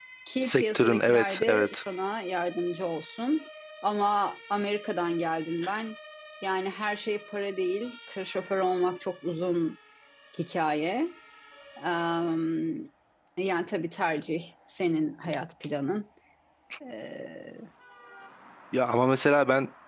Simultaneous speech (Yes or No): Yes